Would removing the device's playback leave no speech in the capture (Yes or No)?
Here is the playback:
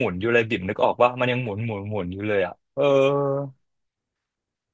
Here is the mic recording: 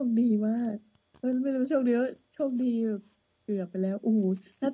No